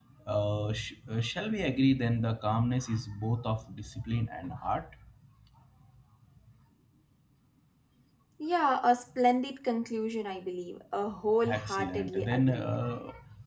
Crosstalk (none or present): present